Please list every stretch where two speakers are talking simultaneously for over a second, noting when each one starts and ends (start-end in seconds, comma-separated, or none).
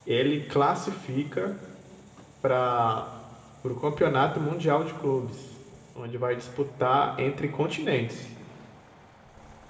none